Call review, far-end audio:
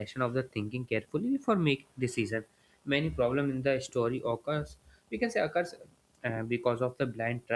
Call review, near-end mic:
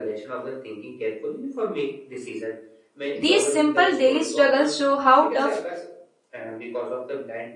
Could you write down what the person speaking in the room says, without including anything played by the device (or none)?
These simple daily struggles show how tough